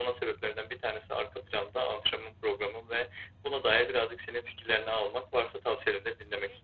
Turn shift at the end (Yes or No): Yes